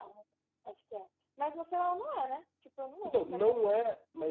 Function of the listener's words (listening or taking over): taking over